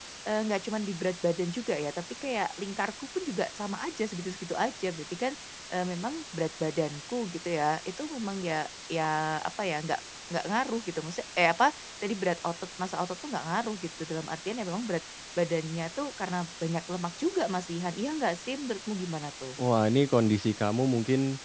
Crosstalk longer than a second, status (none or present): none